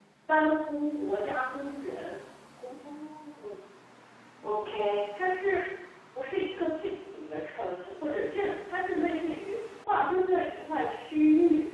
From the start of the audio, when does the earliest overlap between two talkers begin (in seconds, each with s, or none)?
none